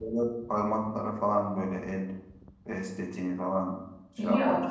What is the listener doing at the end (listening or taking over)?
taking over